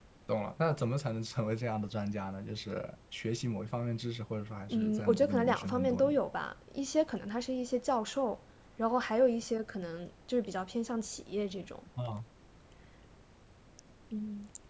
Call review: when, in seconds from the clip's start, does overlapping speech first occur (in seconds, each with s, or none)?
4.7 s